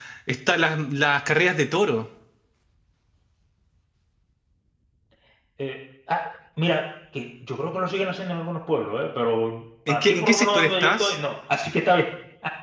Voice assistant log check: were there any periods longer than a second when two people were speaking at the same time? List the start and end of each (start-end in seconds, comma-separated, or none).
9.9-11.2